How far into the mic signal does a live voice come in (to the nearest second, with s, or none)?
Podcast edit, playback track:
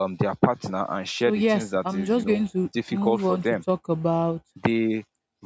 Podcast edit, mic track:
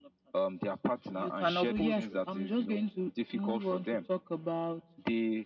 1 s